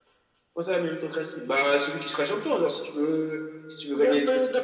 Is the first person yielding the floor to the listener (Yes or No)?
Yes